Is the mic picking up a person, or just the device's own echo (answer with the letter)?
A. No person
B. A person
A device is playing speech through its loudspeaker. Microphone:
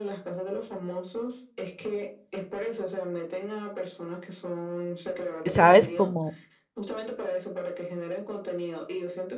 B